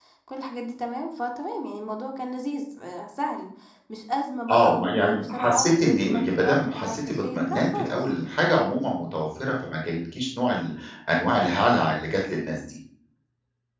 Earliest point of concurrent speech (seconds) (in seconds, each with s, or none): 4.5 s